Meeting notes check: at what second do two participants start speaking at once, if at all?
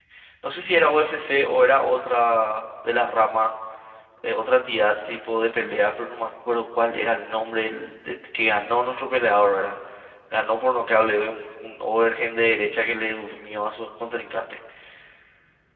none

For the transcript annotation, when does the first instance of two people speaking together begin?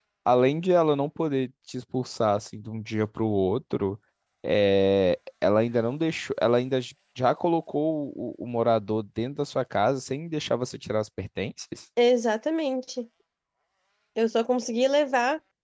none

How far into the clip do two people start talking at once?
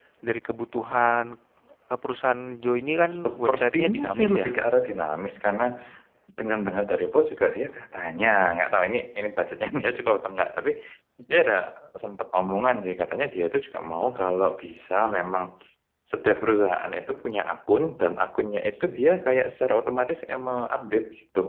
3.1 s

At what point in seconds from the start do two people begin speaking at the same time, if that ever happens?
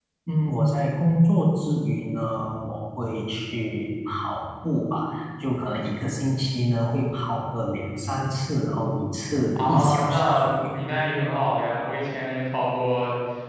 9.6 s

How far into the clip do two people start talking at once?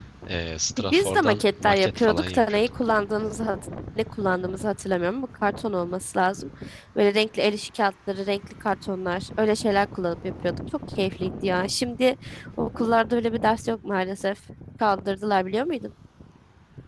0.8 s

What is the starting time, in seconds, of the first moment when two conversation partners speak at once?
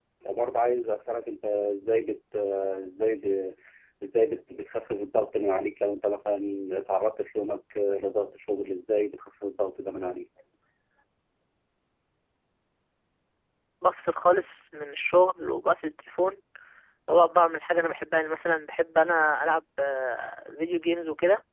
none

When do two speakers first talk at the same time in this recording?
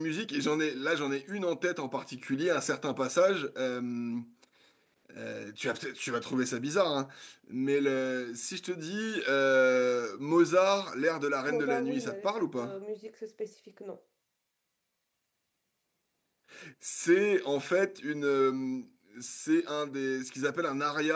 11.5 s

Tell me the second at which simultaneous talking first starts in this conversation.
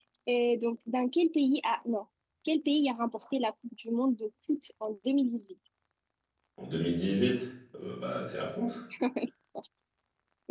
none

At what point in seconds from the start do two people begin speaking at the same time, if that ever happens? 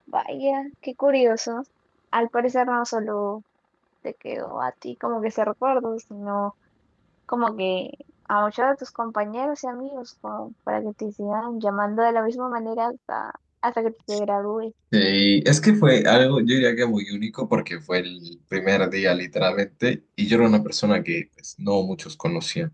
none

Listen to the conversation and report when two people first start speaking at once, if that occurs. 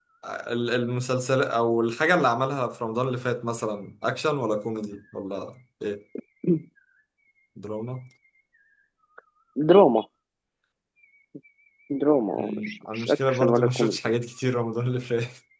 12.4 s

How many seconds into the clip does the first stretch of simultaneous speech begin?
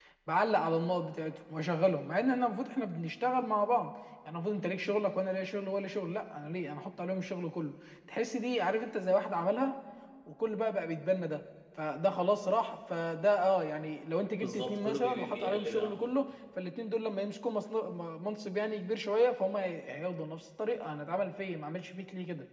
14.4 s

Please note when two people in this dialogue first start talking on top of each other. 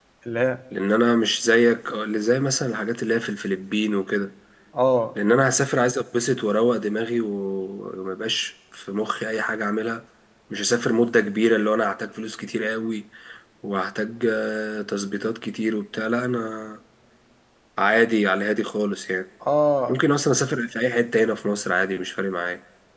none

